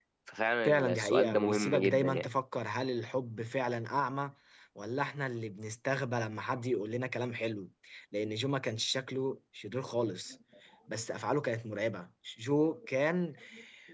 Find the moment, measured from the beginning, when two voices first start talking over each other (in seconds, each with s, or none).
0.7 s